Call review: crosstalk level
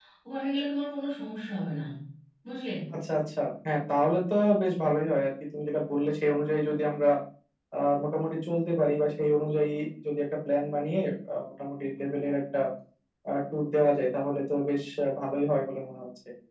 none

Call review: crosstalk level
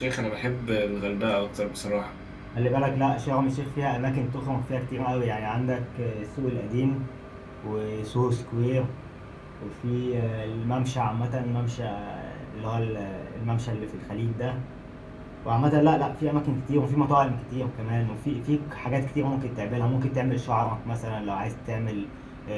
none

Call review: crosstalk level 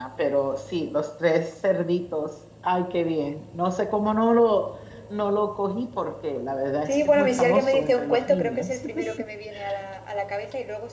present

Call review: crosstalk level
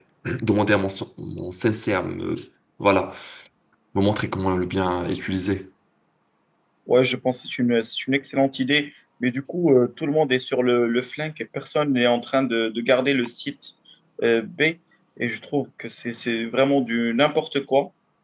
none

